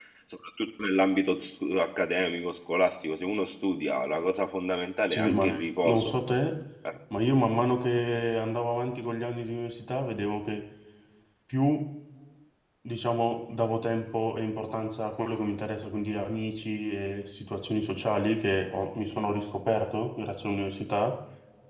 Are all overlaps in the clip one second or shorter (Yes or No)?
Yes